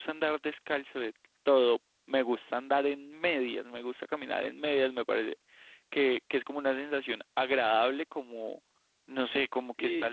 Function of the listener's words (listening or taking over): listening